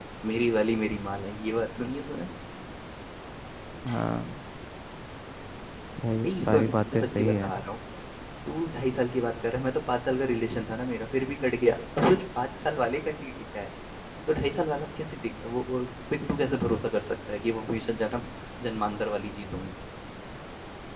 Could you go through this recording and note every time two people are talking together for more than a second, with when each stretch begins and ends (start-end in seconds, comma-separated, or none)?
6.2-7.5